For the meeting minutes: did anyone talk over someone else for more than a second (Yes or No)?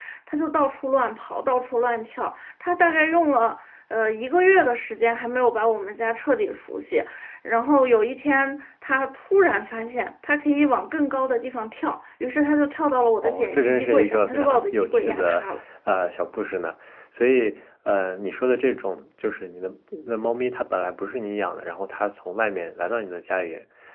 Yes